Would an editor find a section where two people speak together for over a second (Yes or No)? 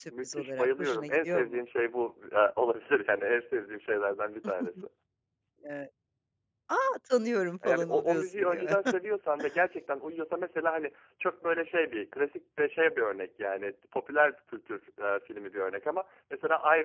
Yes